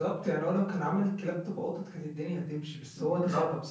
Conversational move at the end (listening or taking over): taking over